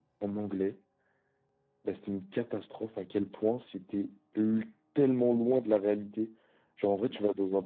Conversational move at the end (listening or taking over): listening